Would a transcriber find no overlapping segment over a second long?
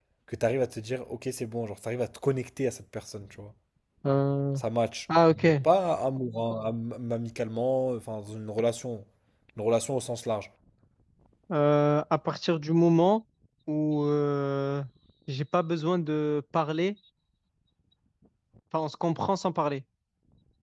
Yes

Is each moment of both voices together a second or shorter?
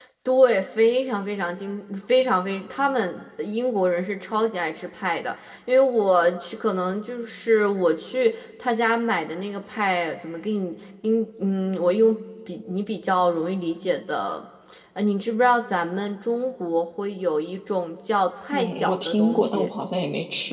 No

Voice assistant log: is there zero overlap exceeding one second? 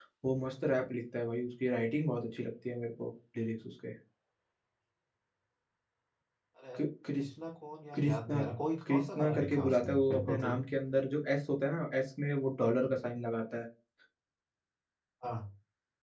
No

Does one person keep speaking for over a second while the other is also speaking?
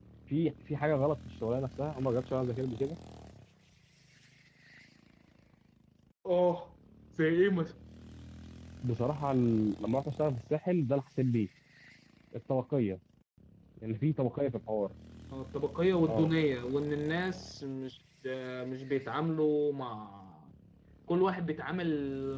No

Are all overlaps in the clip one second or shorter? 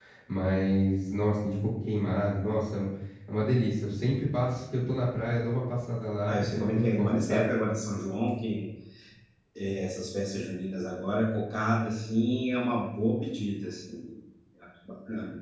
No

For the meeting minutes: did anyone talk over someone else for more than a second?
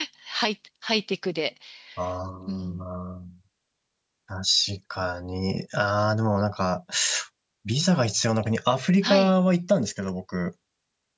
No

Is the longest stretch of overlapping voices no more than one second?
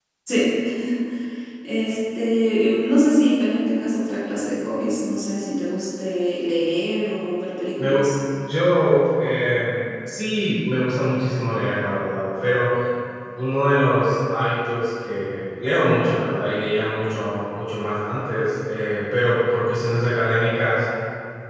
Yes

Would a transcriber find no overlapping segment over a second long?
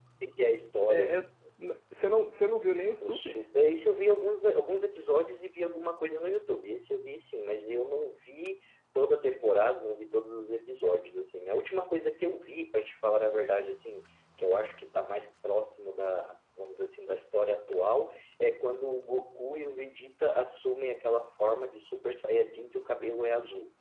Yes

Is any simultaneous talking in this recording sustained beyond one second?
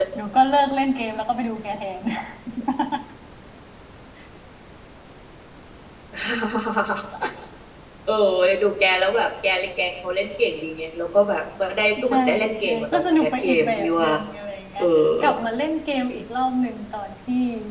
Yes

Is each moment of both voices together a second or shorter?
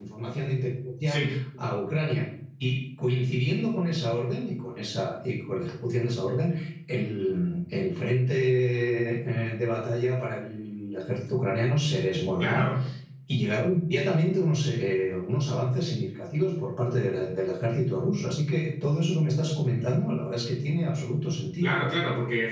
Yes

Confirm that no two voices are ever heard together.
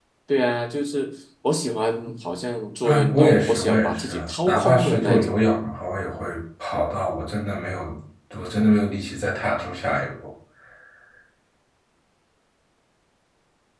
No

